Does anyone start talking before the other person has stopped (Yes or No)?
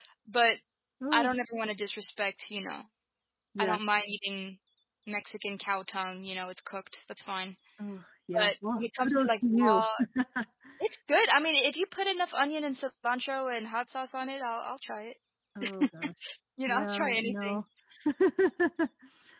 Yes